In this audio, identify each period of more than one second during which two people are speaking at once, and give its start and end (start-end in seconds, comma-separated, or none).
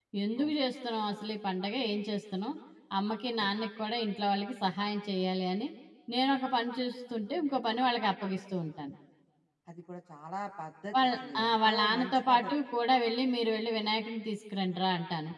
11.0-12.5